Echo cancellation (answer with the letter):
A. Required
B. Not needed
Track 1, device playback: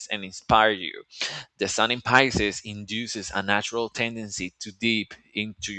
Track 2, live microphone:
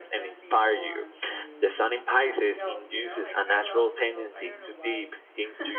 A